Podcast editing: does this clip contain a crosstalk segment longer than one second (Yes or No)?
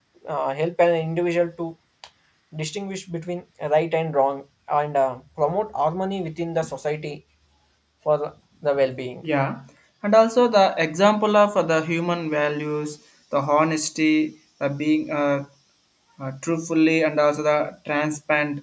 No